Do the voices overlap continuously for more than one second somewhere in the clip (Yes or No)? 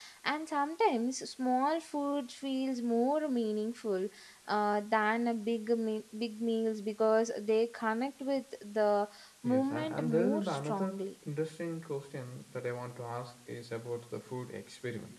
Yes